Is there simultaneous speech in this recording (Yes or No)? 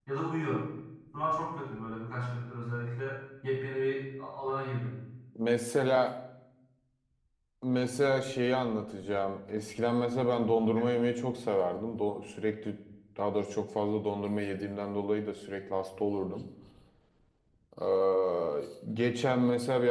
No